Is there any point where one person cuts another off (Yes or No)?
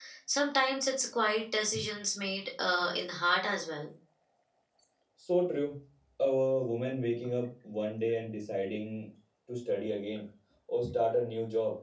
No